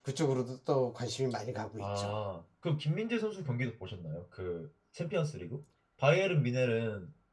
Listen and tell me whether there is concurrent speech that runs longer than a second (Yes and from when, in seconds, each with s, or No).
No